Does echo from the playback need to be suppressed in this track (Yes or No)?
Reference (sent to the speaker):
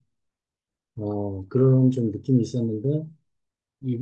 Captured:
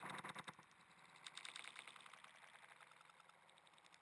No